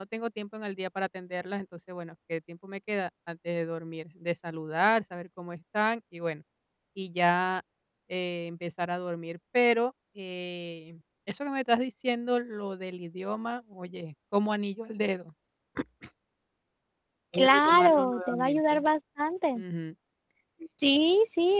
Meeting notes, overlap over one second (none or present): present